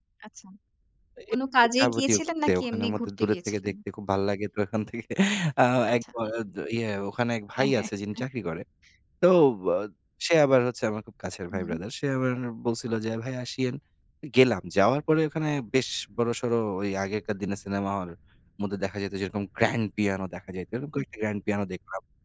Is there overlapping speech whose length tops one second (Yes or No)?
Yes